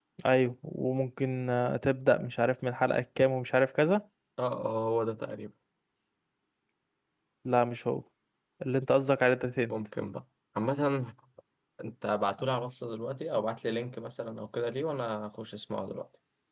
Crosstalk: none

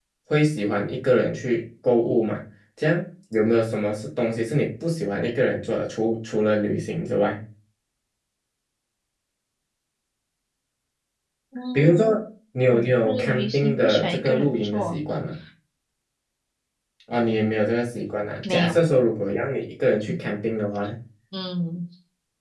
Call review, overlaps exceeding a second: present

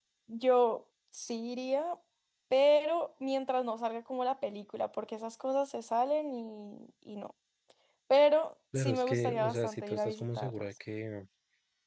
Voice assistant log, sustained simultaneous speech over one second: present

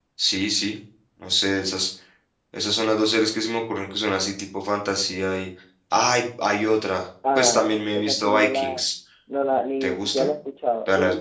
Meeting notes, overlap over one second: present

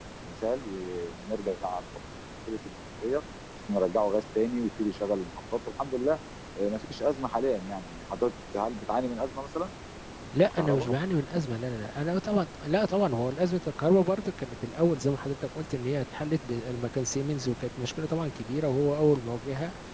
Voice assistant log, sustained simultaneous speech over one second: none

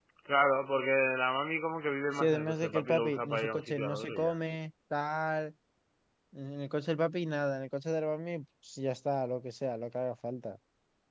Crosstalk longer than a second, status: present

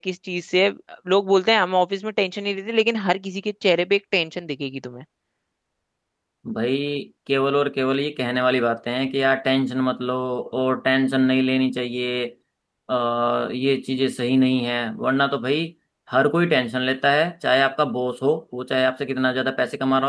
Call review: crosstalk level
none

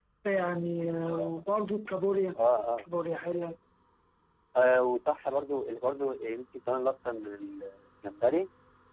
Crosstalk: none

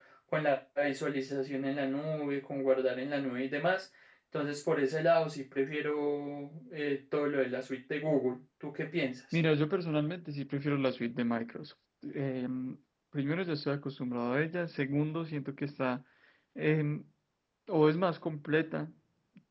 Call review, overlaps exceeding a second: none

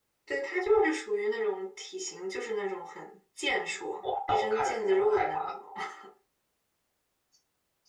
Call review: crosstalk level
present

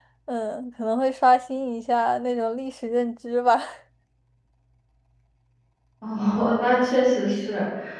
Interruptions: none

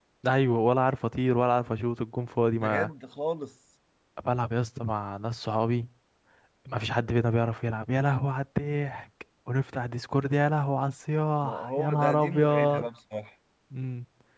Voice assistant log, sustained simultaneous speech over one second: present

